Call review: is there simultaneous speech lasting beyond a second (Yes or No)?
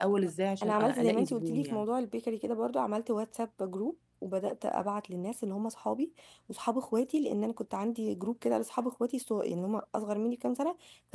Yes